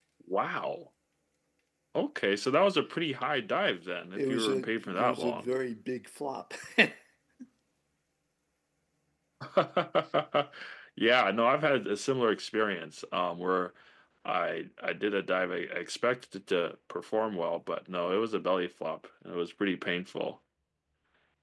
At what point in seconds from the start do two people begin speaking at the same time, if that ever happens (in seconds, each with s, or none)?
4.1 s